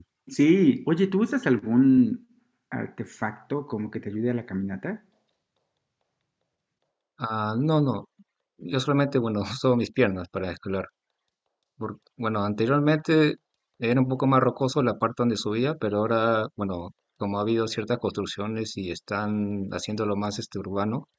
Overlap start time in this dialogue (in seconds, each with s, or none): none